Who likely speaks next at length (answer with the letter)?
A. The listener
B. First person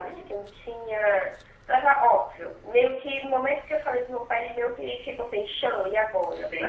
A